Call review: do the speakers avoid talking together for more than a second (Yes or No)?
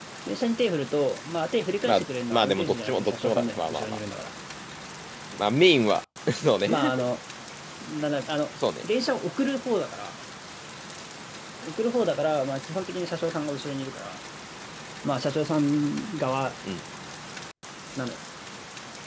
No